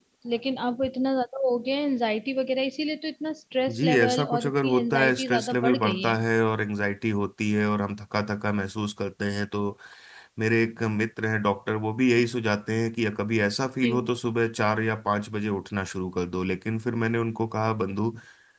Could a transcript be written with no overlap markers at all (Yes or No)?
No